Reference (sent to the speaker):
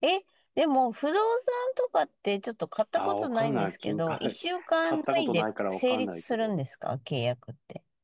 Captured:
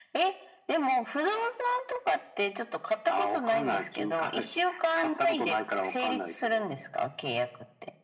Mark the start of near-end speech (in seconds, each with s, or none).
none